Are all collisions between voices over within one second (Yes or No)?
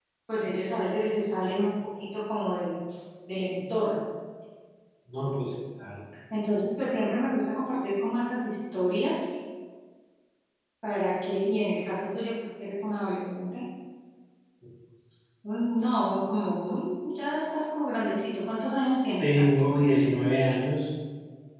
Yes